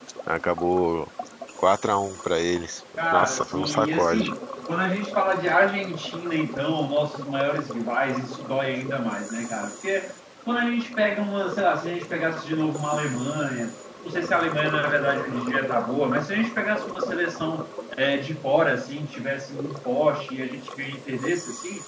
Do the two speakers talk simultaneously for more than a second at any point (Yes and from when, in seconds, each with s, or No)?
Yes, from 3.0 s